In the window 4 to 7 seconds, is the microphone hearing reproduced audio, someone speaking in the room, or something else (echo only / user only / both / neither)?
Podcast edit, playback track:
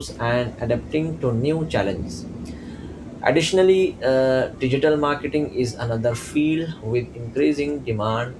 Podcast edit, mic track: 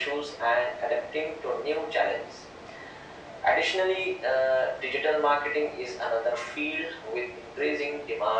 echo only